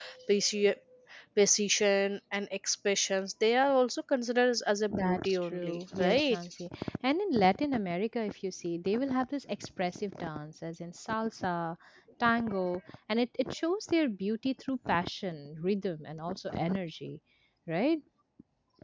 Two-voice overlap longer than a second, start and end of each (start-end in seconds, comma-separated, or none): 4.9-6.4